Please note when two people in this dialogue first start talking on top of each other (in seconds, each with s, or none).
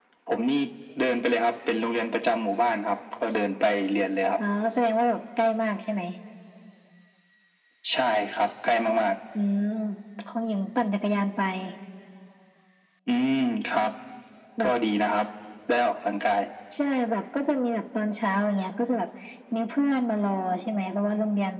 none